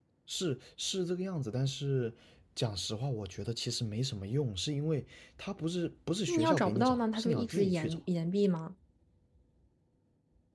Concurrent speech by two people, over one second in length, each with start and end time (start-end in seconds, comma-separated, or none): 6.3-8.0